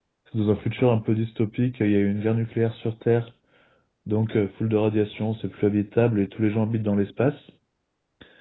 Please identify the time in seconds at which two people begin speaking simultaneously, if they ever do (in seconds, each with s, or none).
none